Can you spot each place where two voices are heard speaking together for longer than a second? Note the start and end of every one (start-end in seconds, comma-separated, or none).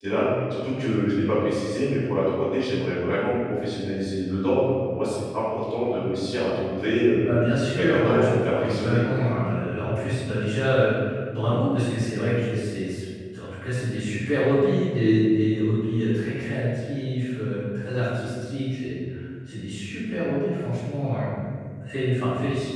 7.8-9.2